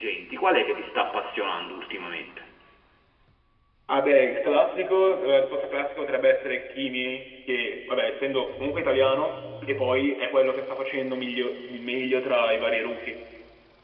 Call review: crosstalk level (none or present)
none